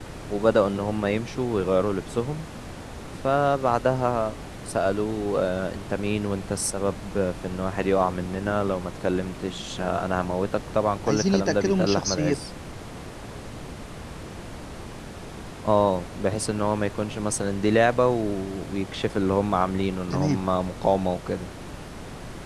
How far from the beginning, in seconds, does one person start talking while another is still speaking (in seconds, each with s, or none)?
11.1 s